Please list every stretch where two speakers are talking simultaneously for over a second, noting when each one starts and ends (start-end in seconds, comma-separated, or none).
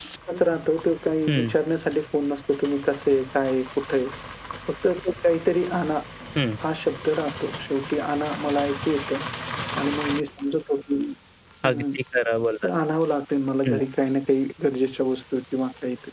none